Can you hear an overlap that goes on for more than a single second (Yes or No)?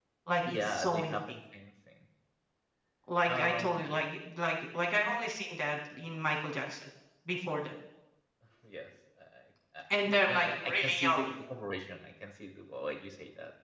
Yes